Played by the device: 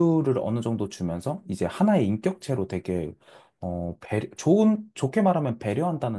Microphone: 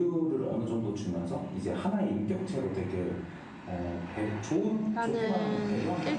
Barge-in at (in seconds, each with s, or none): 4.8 s